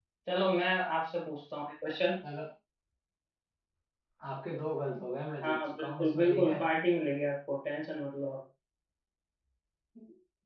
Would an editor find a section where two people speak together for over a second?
Yes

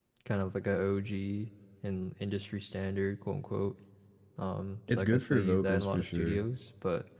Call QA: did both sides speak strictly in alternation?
No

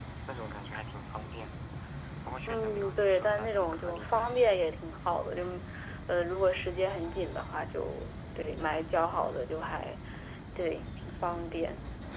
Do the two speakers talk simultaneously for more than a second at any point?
Yes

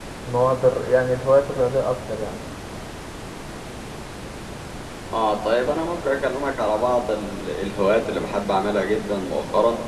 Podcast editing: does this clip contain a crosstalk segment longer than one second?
No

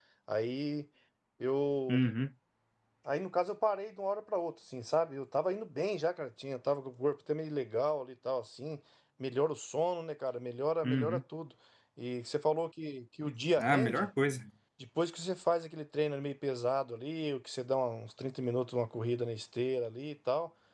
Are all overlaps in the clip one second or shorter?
Yes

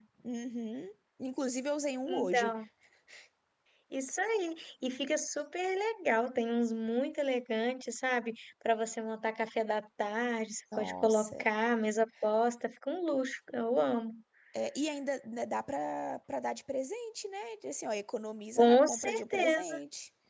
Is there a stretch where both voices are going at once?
Yes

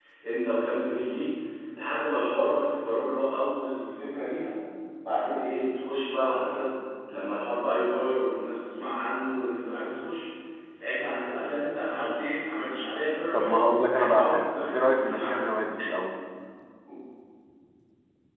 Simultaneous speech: Yes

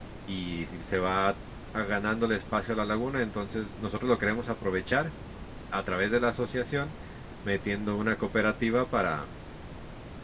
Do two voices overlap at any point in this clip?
No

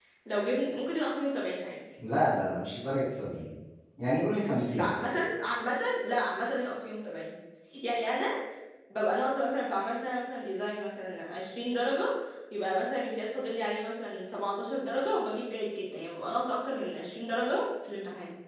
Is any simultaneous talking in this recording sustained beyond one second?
No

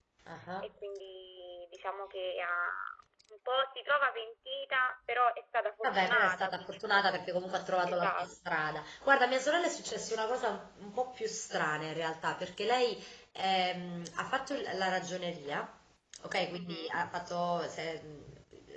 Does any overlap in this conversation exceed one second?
Yes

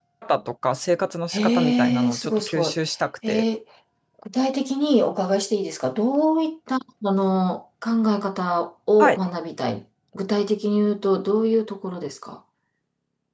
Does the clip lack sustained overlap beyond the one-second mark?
No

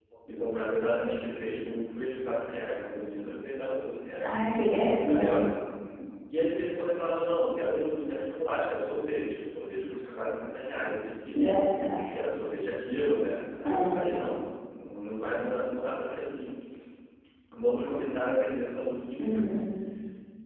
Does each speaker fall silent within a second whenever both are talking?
Yes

